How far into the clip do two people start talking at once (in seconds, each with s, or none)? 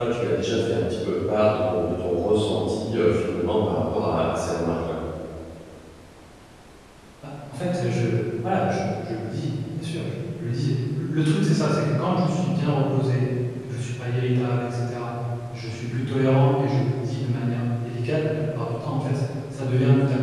none